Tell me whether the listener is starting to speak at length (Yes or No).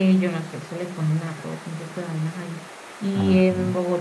No